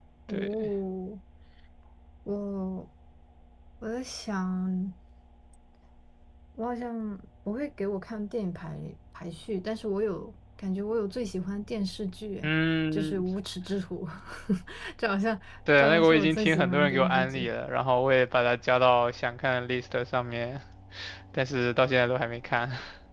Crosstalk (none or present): present